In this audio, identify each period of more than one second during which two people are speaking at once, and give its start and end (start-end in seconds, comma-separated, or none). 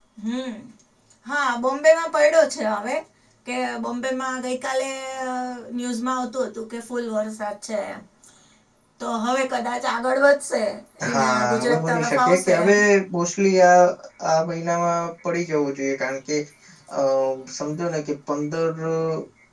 11.1-12.5